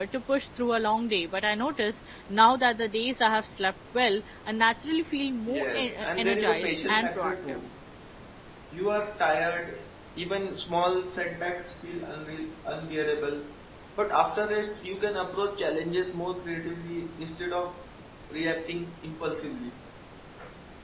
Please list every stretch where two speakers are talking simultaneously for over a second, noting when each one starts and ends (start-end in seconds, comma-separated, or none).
5.5-7.6